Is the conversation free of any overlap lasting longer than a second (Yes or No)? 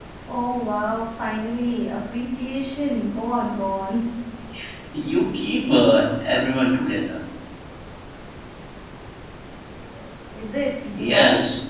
Yes